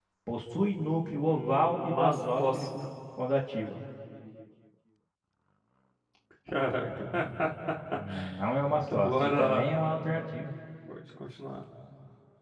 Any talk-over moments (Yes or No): Yes